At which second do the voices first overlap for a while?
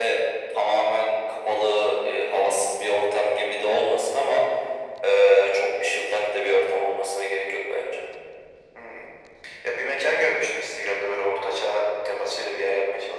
none

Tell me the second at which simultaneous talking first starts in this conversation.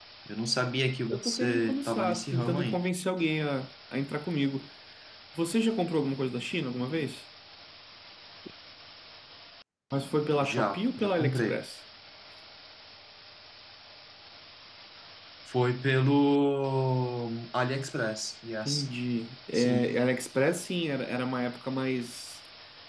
1.1 s

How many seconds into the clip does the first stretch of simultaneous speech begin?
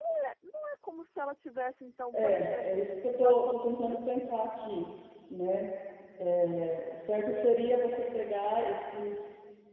2.1 s

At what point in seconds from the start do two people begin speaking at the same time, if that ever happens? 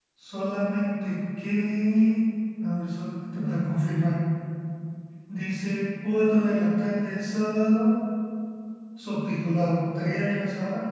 none

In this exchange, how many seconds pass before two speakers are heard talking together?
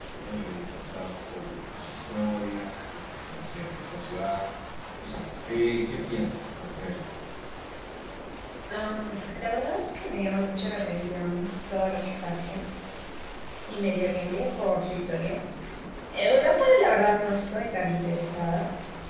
none

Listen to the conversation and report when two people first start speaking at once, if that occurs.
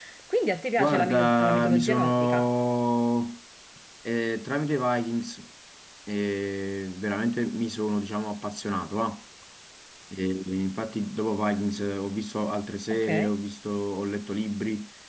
0.8 s

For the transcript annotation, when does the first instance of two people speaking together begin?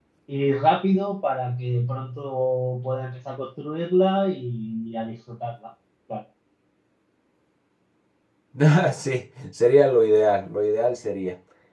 none

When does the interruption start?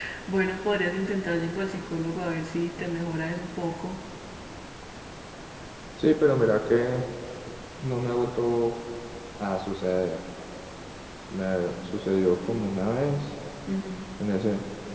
none

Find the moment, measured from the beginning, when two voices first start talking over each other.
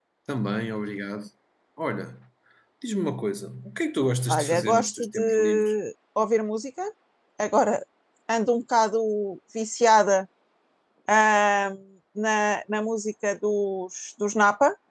4.3 s

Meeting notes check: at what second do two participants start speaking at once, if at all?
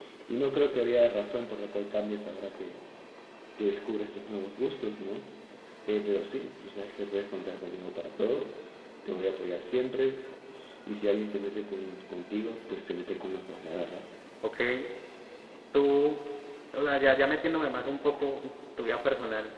none

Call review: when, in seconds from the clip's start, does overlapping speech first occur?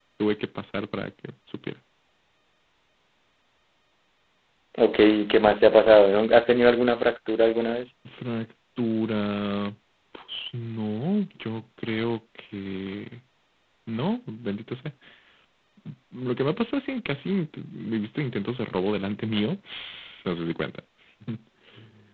none

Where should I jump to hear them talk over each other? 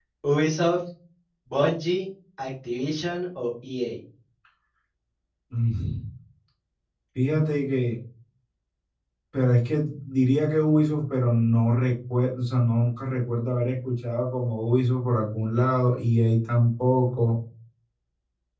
none

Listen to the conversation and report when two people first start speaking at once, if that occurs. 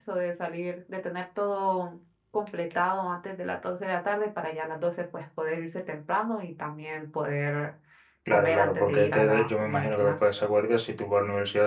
8.3 s

